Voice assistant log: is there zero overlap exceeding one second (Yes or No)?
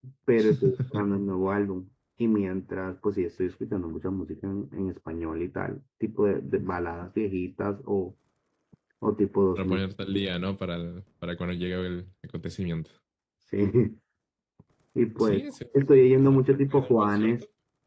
No